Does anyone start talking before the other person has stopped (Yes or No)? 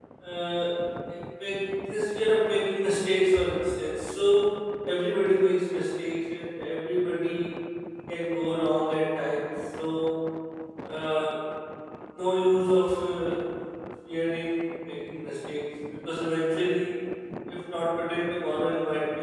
No